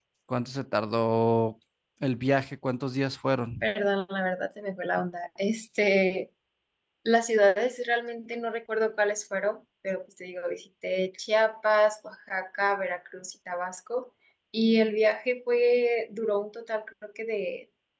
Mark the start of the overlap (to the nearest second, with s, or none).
none